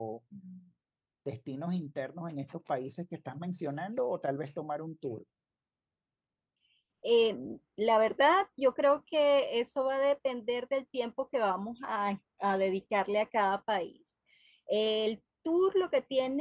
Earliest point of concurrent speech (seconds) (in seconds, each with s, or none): none